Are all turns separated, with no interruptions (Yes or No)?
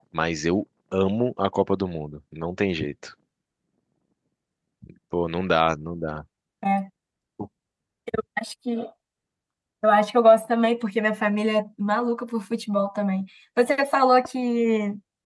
Yes